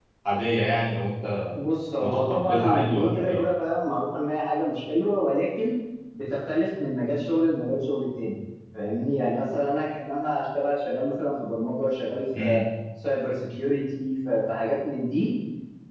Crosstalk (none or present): present